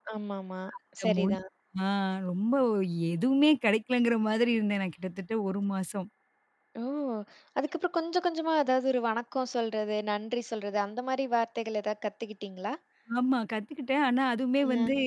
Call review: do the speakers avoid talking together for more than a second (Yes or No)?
Yes